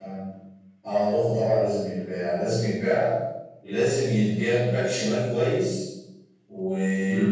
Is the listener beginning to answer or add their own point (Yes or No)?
No